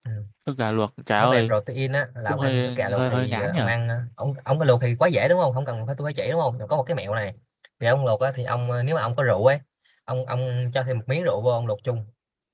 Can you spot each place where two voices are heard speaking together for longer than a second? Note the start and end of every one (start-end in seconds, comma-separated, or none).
2.3-3.7